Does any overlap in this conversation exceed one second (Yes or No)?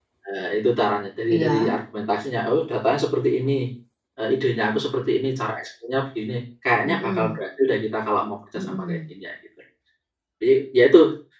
No